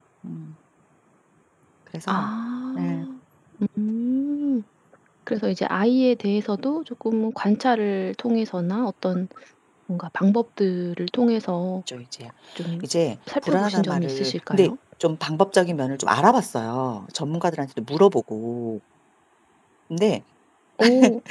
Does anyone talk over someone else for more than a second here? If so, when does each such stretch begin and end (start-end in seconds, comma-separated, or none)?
13.4-14.7